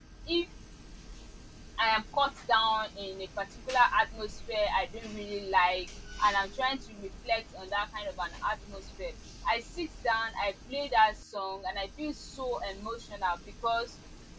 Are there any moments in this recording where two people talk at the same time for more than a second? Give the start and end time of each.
none

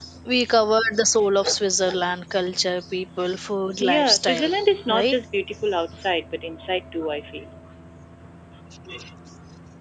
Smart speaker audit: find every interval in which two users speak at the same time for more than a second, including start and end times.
3.8-5.1

